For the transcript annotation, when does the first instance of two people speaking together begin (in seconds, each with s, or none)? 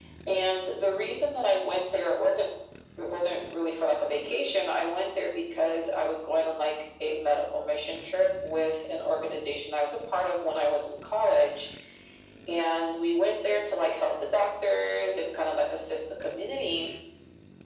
none